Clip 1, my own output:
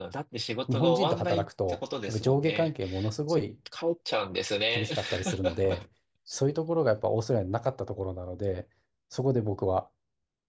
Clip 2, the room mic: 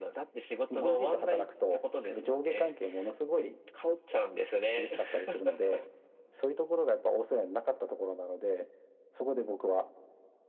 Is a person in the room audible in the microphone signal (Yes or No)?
No